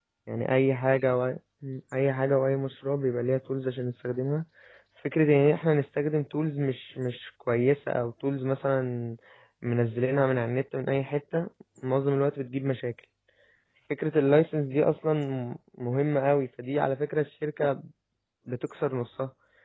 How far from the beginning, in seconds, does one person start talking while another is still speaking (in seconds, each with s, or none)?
none